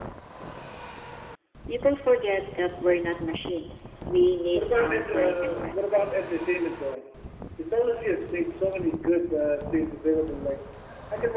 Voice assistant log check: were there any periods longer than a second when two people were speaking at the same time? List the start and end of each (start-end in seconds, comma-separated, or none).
4.5-5.9